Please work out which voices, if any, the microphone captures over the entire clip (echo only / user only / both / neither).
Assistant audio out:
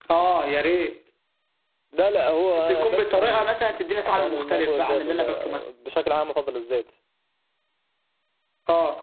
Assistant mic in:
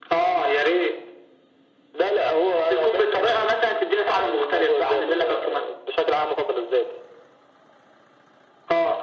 echo only